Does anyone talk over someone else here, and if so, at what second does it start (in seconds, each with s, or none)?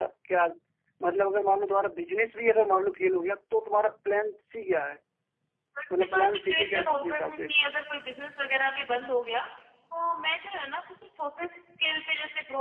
6.0 s